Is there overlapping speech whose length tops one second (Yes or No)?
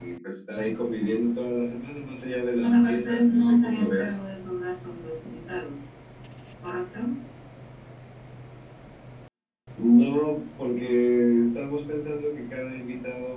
Yes